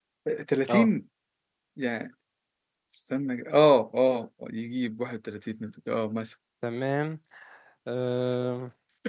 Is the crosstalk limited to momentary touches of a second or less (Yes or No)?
Yes